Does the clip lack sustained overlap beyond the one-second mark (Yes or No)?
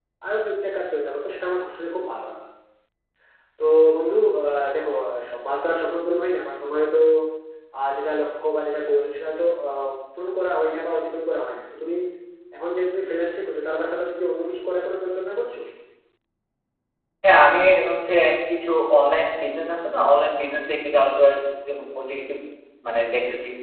Yes